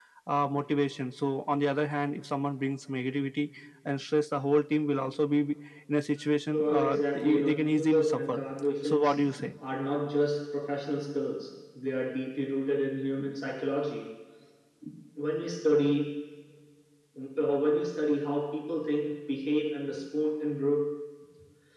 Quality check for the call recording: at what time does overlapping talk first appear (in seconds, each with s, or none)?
6.5 s